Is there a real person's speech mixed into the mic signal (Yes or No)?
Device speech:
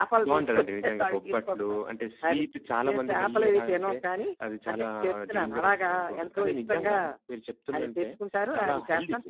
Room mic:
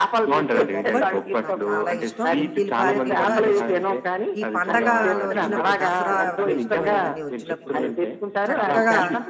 Yes